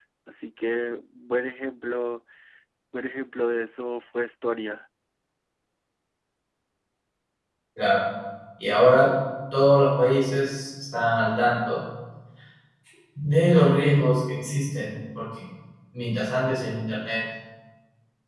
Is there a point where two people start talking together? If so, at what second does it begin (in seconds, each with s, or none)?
none